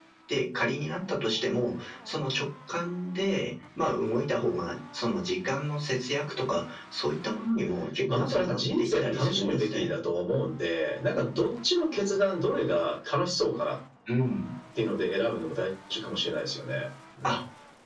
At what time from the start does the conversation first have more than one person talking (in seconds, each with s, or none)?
8.1 s